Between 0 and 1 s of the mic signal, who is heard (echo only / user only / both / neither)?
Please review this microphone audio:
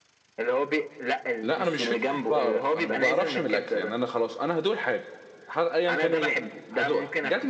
echo only